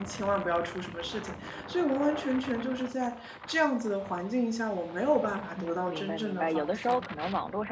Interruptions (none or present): present